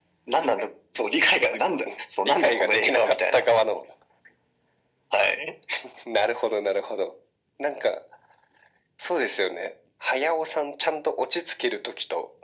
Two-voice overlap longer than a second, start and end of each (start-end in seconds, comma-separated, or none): 2.2-3.4